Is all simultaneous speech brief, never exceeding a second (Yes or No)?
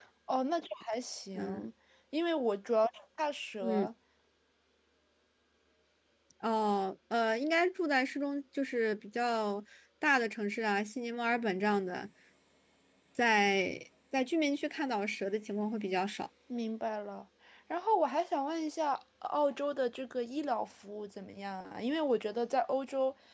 Yes